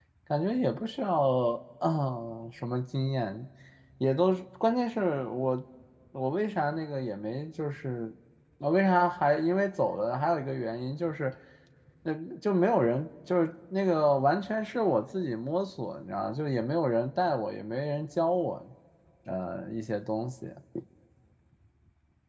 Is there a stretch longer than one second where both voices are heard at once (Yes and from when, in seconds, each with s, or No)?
No